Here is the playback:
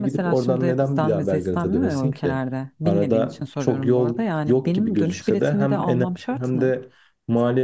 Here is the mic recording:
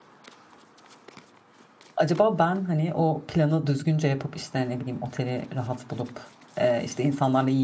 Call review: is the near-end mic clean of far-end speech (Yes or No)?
Yes